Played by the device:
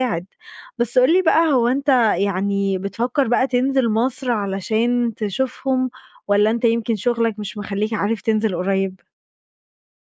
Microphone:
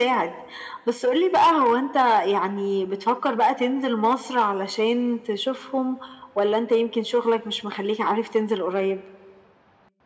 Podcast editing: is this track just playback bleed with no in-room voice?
Yes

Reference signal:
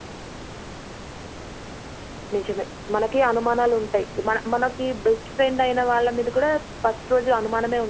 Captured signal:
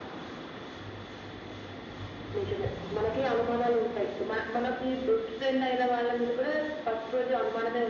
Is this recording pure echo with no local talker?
Yes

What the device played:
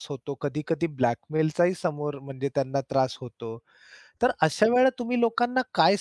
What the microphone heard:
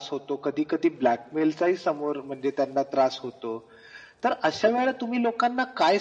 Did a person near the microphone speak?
No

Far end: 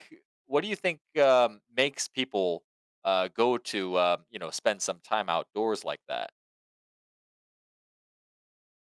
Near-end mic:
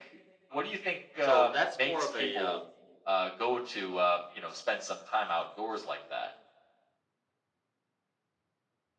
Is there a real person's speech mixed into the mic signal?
Yes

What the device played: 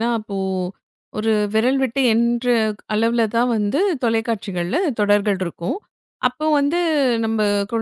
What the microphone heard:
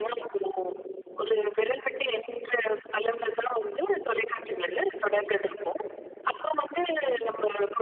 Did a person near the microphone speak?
No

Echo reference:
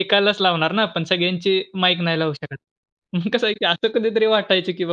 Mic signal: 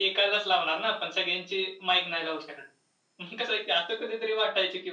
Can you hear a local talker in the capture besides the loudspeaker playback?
No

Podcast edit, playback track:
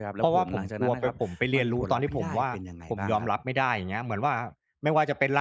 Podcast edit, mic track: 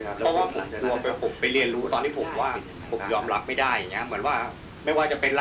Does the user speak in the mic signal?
No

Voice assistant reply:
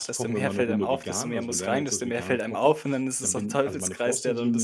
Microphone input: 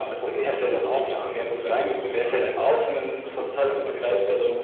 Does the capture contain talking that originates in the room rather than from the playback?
No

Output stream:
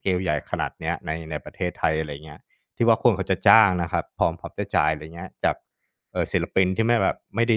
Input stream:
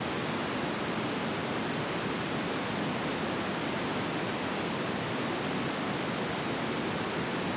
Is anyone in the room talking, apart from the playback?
No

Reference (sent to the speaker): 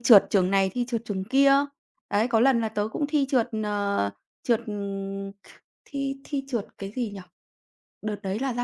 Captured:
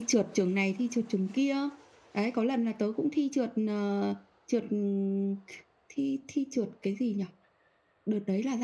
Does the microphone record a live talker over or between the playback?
No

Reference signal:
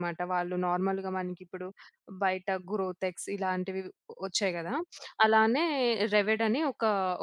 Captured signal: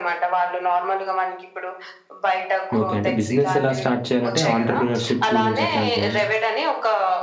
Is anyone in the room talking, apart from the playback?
Yes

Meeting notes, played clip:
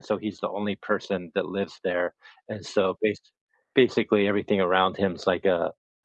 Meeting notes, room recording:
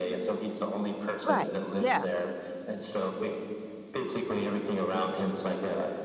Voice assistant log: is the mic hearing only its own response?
No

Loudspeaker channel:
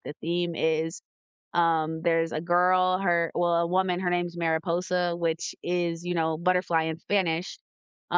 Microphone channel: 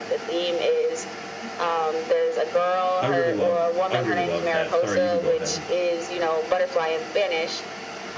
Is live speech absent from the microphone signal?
No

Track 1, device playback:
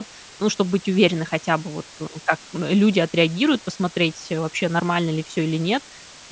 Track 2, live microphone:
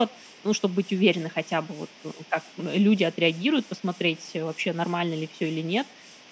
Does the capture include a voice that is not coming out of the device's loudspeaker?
No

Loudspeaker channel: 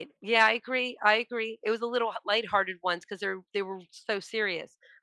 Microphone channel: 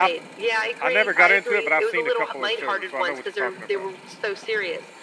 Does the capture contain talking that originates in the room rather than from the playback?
Yes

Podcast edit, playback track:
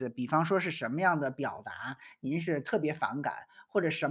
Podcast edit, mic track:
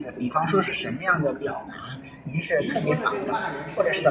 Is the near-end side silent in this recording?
No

